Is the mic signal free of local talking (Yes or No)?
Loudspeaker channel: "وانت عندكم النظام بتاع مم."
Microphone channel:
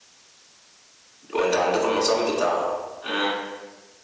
Yes